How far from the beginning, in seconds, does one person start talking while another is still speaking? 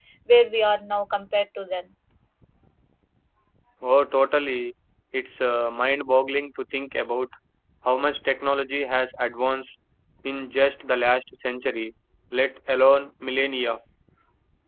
none

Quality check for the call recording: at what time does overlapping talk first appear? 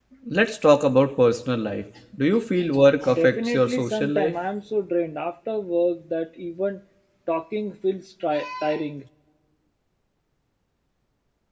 3.0 s

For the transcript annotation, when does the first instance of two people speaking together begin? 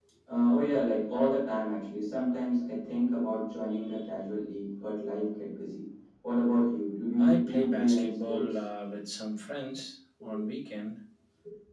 7.2 s

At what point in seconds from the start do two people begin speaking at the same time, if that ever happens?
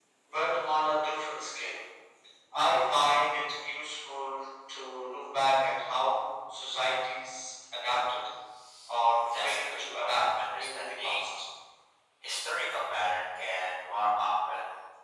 9.1 s

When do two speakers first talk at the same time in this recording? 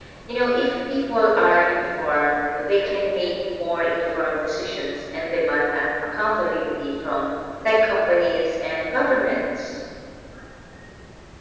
none

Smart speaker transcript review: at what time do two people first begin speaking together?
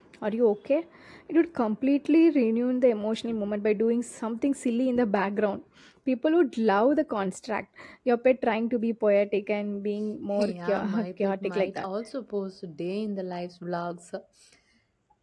10.4 s

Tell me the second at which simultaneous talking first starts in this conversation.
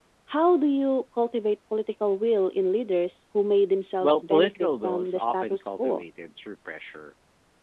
4.0 s

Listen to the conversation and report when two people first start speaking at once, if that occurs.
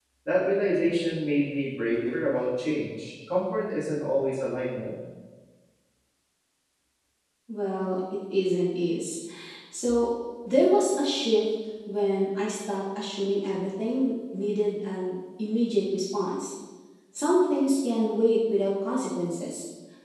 none

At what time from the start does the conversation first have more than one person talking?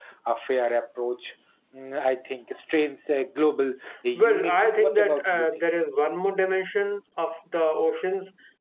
4.2 s

